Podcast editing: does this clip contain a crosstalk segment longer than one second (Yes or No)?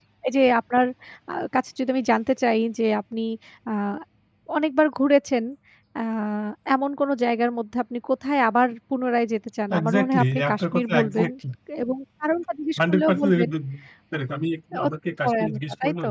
Yes